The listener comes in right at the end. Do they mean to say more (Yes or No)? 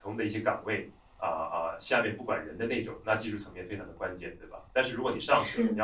No